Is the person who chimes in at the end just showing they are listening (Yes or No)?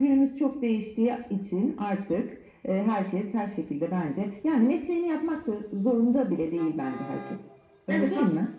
No